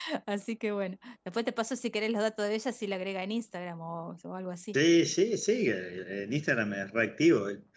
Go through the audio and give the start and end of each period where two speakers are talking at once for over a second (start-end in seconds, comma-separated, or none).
none